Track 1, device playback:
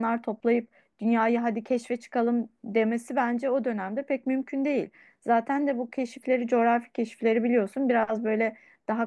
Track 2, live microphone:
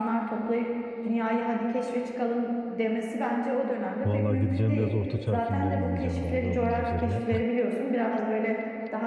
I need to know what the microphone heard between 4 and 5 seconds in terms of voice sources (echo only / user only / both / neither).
both